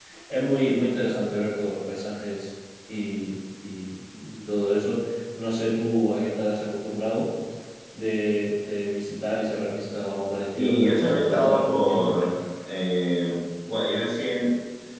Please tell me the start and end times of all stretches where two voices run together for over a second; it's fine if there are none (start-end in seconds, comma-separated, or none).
10.6-12.1